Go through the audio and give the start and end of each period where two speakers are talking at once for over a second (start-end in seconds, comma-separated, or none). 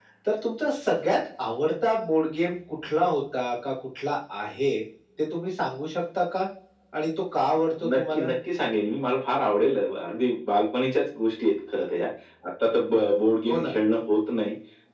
none